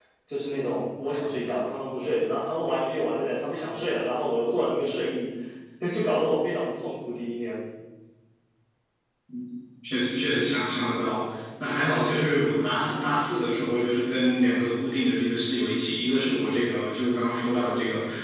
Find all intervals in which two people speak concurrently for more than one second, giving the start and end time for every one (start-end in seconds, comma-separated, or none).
none